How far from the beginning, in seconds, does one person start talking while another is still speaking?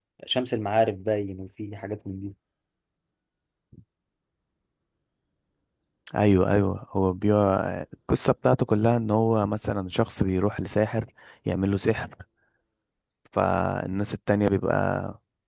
none

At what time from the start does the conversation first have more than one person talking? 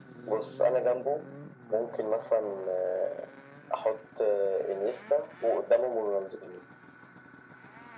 none

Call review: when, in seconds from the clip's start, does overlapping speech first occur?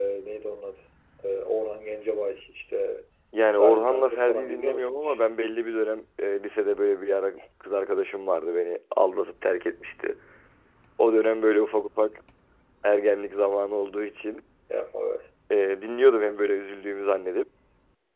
3.6 s

